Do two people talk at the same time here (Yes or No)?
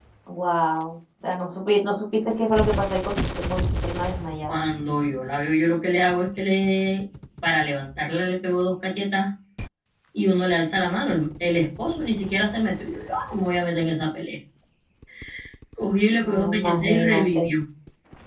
Yes